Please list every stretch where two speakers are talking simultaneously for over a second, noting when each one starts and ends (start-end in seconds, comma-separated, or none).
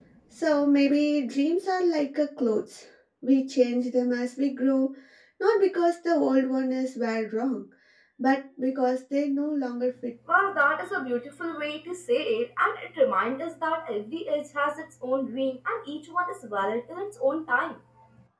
none